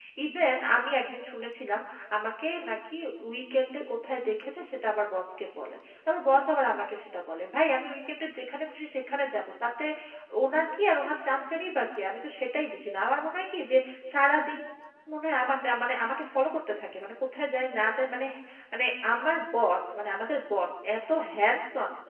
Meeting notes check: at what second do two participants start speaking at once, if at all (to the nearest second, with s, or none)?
none